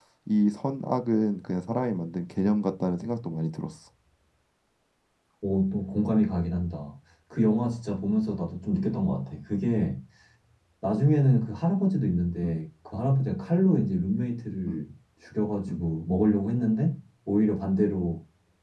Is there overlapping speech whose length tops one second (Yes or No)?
No